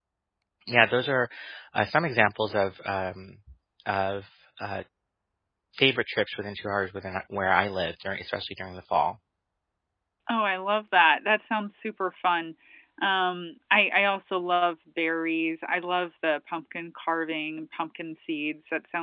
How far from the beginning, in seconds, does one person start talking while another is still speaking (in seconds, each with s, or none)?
none